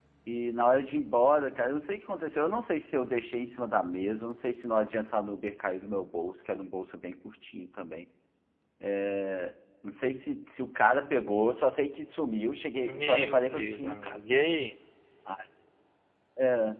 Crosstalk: present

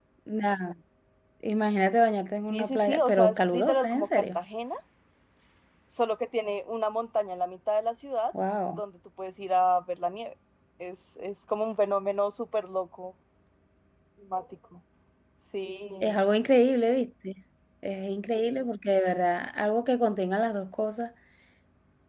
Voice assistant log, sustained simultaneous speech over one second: present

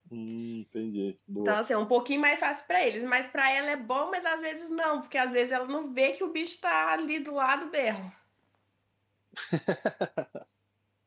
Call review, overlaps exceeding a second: none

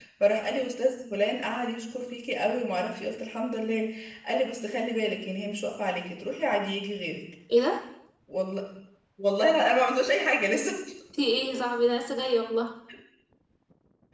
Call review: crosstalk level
none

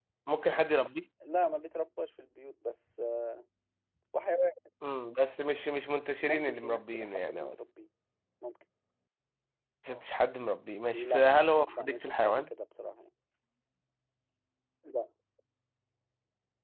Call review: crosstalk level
present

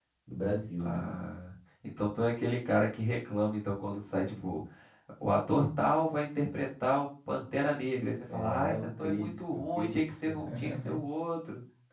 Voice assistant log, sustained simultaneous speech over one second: present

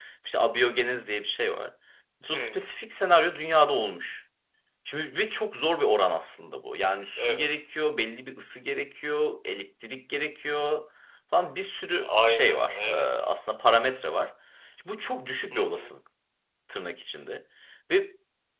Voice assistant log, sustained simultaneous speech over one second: present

